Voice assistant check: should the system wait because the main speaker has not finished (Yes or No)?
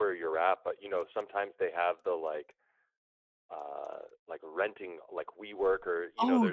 Yes